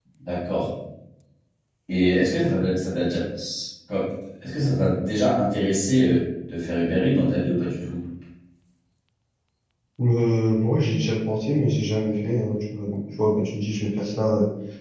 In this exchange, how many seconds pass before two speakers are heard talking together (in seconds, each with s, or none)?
none